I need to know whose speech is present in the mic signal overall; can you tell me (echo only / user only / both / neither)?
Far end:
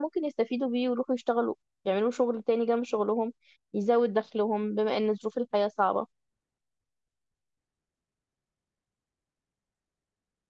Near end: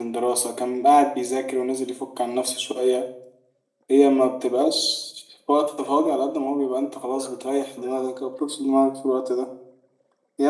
user only